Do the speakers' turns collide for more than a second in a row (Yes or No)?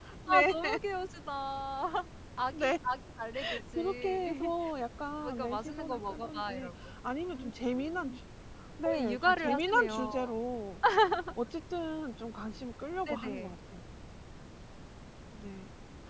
Yes